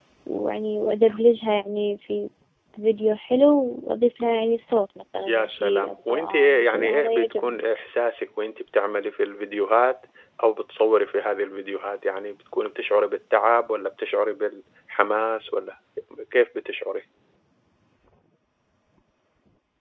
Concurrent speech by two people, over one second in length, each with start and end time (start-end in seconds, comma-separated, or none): 5.2-7.6